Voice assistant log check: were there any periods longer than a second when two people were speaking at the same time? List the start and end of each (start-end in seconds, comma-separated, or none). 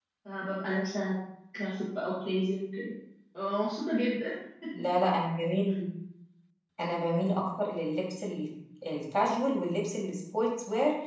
none